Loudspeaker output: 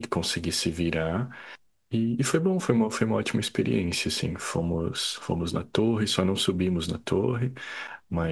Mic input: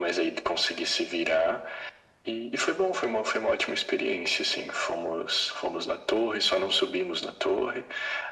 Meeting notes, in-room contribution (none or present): none